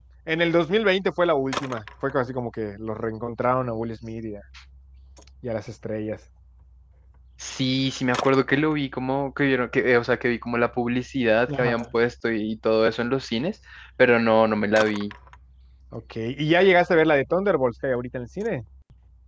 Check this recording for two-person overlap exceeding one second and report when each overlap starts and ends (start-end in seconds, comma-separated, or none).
none